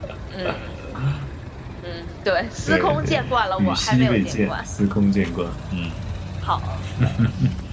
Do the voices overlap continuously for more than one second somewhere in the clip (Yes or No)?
Yes